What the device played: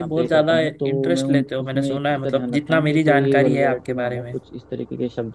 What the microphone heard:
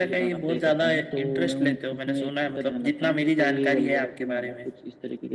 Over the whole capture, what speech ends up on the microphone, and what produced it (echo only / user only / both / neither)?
echo only